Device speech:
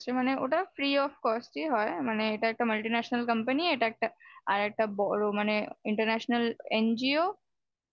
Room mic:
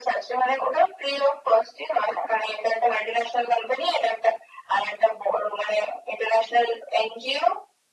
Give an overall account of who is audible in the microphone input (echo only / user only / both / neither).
echo only